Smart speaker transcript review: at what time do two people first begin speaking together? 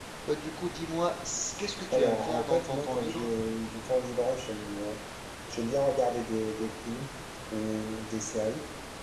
1.9 s

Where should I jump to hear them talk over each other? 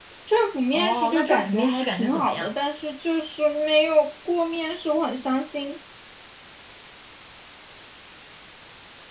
0.7 s

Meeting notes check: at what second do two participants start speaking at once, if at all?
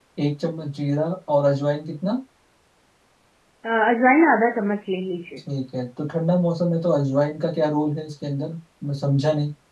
none

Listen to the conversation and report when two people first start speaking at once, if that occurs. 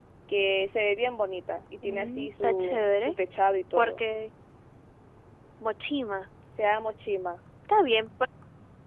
1.8 s

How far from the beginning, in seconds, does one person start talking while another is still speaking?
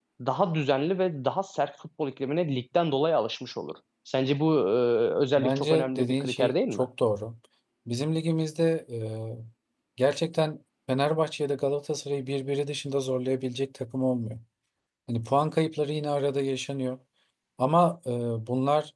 5.4 s

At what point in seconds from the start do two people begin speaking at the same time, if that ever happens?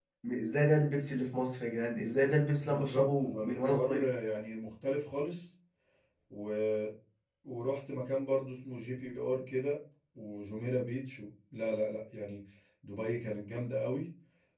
2.6 s

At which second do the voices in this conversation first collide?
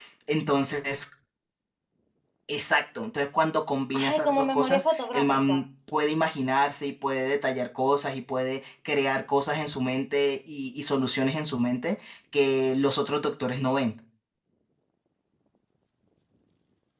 3.9 s

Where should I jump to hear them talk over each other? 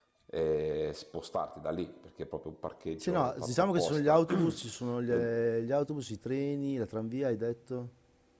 3.0 s

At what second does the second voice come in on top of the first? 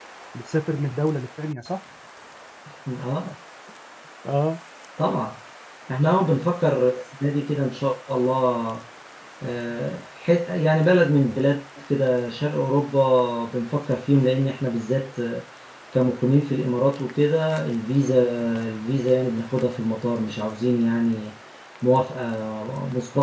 none

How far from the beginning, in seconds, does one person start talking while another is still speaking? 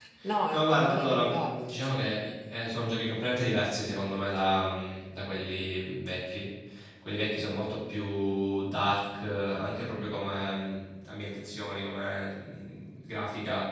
0.5 s

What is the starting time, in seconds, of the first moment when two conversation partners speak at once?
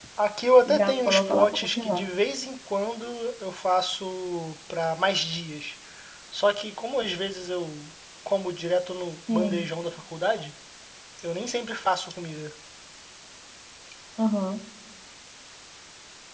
0.7 s

